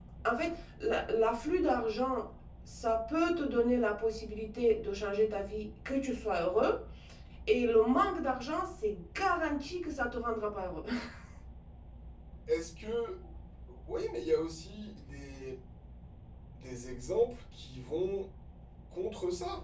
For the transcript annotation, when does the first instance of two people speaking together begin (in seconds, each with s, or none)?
none